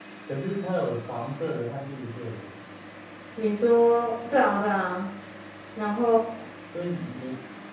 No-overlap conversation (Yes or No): Yes